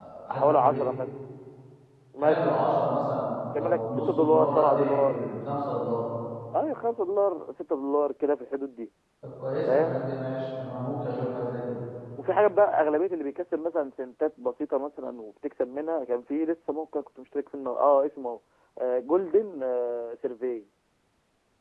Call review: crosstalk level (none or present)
present